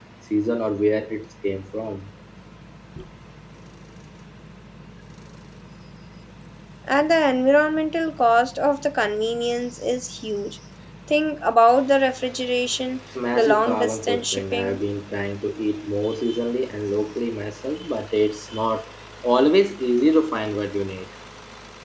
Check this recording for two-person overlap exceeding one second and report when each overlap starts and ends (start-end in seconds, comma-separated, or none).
13.3-14.8